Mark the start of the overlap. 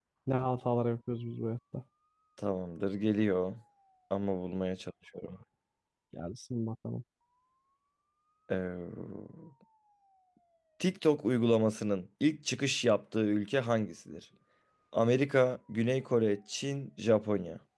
none

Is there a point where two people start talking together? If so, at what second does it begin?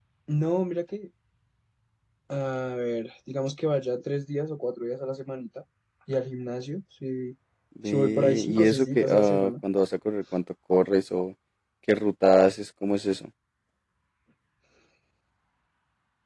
7.8 s

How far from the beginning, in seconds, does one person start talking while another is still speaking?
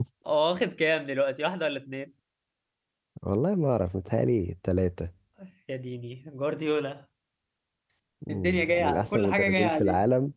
8.3 s

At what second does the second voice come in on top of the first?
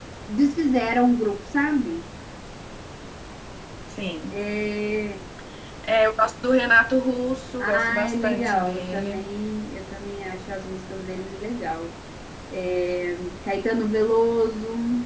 7.6 s

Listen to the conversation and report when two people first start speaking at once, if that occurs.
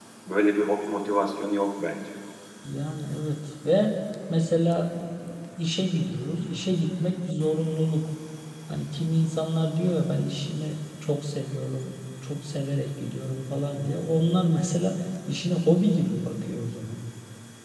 none

